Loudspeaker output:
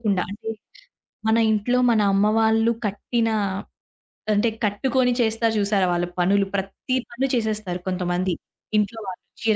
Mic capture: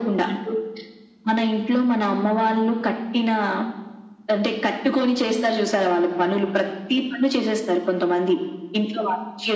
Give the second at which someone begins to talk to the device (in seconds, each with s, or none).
none